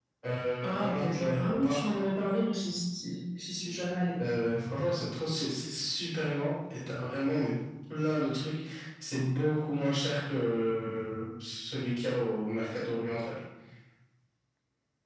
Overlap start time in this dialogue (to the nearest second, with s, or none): 1 s